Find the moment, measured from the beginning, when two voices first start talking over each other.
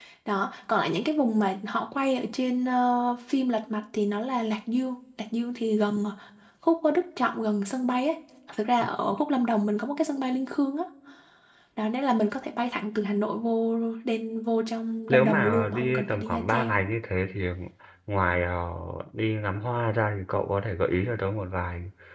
15.1 s

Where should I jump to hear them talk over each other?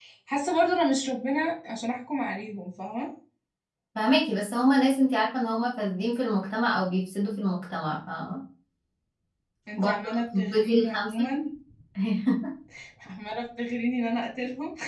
9.8 s

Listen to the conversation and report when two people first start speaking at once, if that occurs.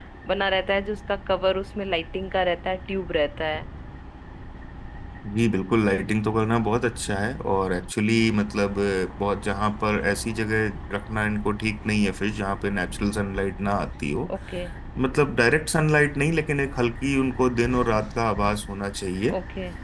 none

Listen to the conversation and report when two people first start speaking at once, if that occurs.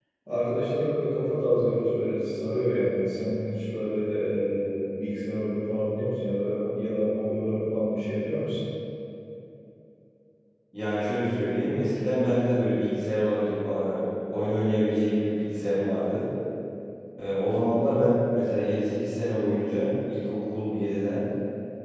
none

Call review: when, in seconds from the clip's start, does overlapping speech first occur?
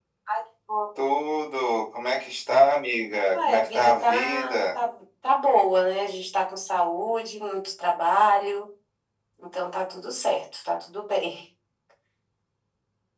3.3 s

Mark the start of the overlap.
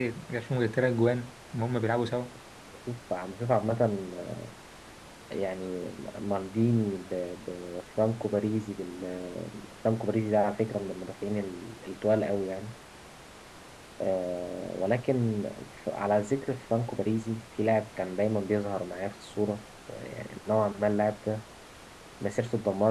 none

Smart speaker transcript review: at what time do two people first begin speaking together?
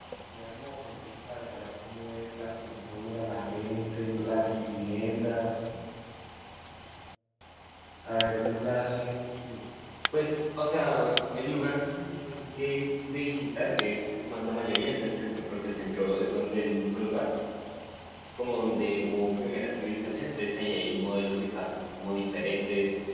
none

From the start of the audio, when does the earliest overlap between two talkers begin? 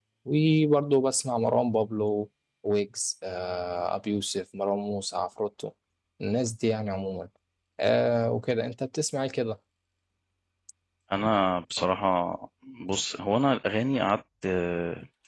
none

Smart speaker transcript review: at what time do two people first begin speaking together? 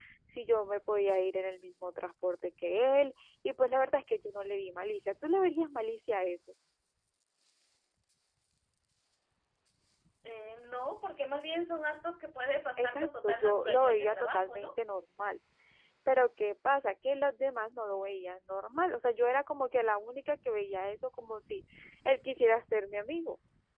12.8 s

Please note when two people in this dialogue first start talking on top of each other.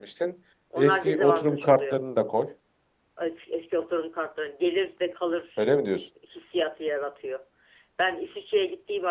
0.8 s

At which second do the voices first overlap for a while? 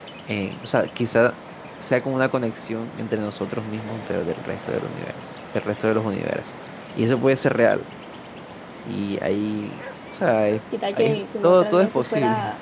10.7 s

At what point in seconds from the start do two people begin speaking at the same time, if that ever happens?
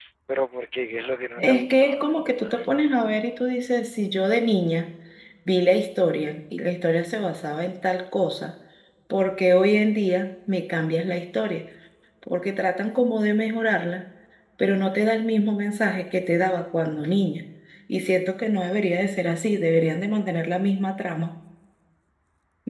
1.4 s

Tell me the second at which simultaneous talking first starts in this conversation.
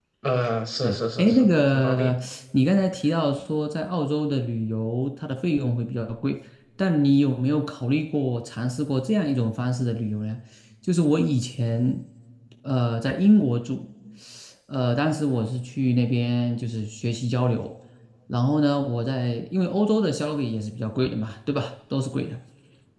0.8 s

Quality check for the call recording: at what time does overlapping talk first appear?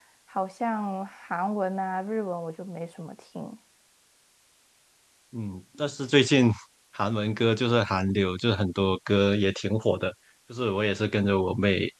none

